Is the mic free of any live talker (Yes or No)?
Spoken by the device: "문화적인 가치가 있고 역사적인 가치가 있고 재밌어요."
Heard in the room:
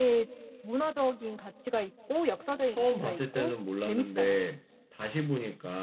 No